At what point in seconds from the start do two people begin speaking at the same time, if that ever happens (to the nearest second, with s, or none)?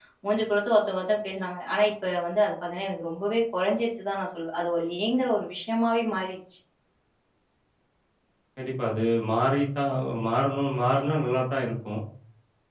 none